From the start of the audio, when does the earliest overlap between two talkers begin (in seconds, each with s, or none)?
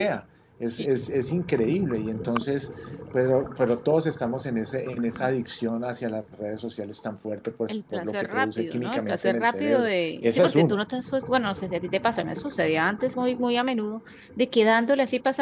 7.7 s